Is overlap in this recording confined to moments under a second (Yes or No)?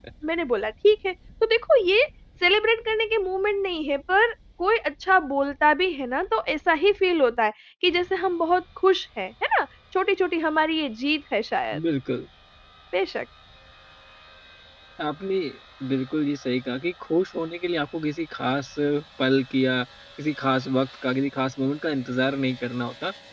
Yes